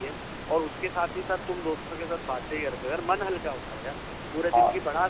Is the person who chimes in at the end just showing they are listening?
Yes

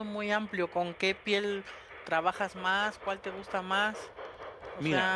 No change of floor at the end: No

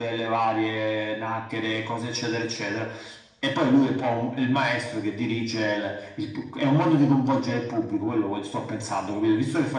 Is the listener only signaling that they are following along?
Yes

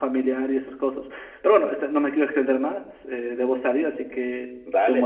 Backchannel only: No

